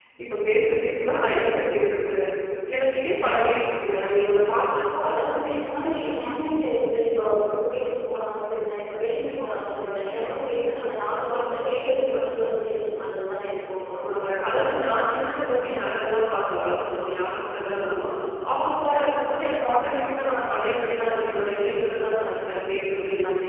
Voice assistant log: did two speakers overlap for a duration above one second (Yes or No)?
No